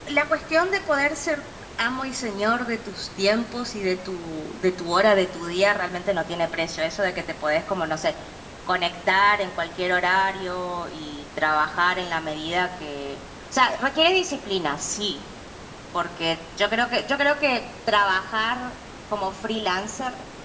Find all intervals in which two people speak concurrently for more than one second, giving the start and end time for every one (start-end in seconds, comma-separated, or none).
none